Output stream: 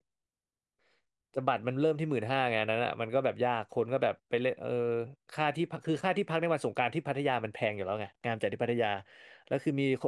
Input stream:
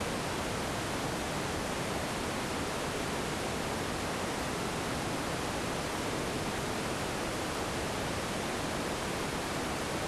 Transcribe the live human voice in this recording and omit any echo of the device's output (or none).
none